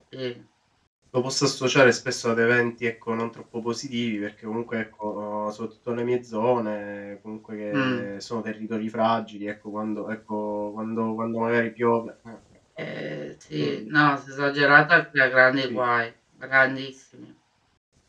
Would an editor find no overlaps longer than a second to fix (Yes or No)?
Yes